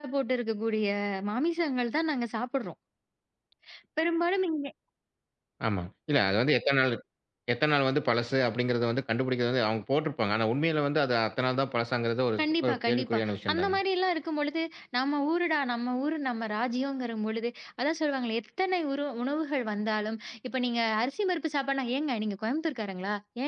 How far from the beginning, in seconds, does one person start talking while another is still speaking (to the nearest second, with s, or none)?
12 s